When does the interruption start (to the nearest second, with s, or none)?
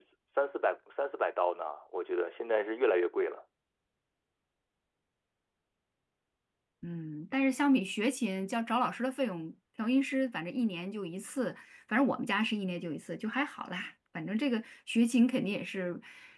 none